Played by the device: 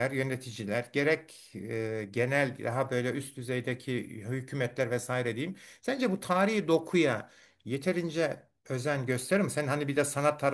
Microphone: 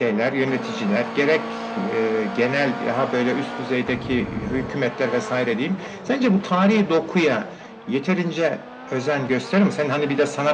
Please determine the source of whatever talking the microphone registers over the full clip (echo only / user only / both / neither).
echo only